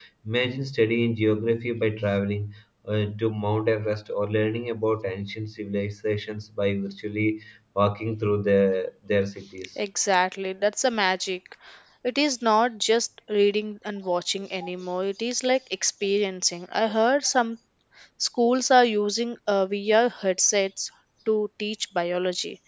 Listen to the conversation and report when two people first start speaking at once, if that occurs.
none

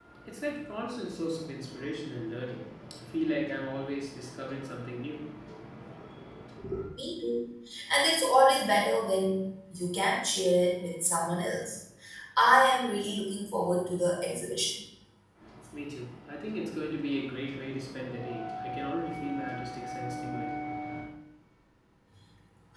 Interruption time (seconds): none

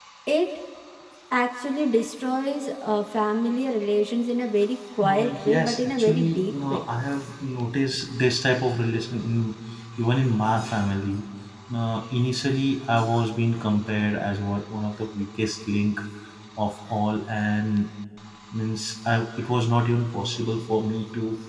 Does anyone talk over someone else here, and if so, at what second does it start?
5 s

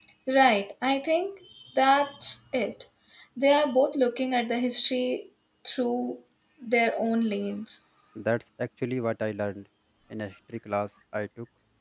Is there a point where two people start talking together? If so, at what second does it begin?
none

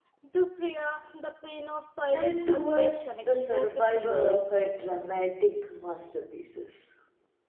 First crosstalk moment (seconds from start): 2 s

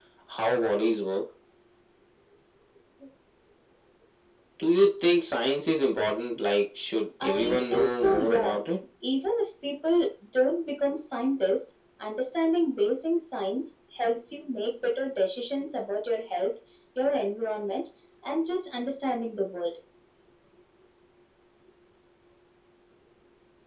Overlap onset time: 7 s

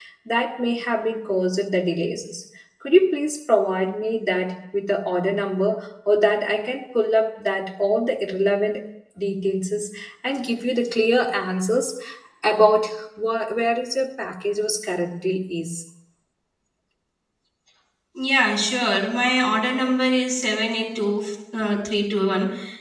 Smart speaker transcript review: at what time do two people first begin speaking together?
none

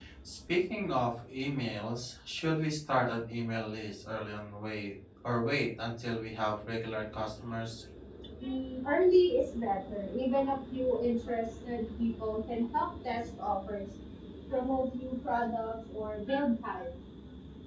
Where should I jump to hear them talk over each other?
none

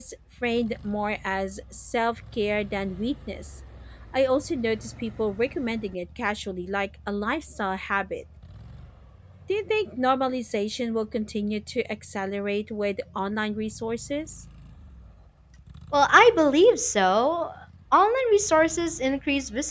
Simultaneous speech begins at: none

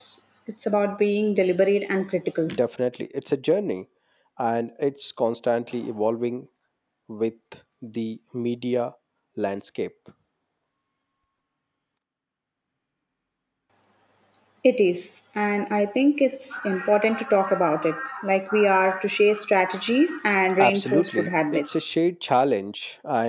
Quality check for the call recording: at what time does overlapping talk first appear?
21 s

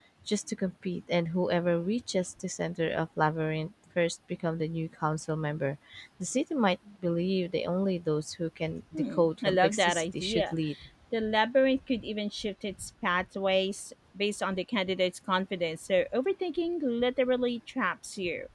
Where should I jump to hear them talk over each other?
9 s

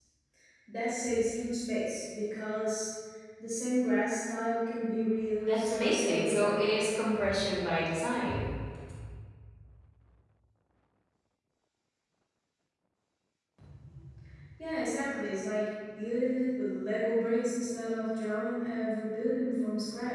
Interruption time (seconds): 5 s

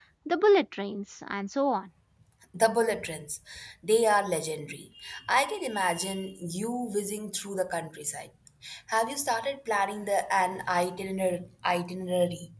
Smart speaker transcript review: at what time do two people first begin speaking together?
none

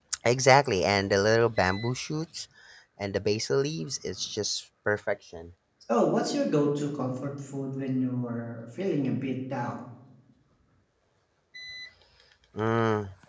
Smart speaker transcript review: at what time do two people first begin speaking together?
none

